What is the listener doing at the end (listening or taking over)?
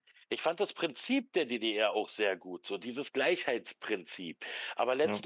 listening